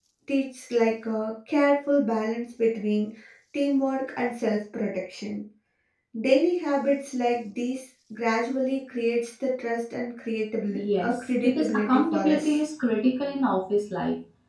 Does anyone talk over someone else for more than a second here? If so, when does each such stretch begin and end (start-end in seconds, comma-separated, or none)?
10.7-12.6